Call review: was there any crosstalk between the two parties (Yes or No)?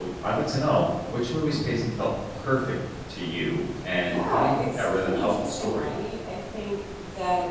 Yes